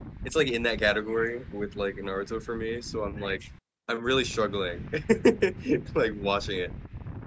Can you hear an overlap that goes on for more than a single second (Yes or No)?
No